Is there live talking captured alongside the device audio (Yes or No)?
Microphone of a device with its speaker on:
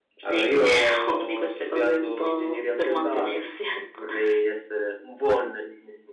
No